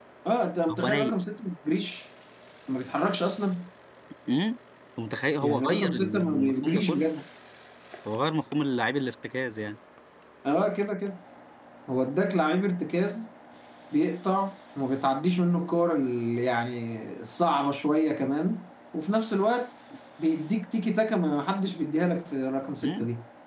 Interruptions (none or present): present